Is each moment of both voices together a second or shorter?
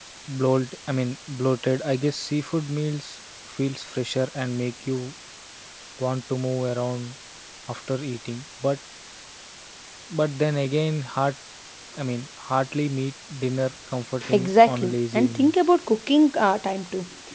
No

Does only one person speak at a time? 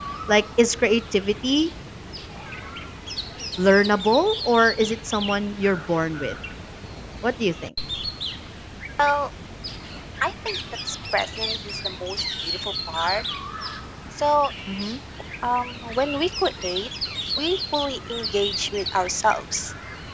Yes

